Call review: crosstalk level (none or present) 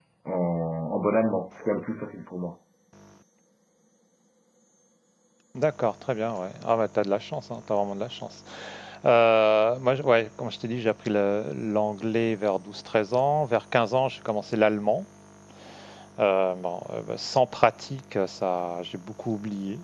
none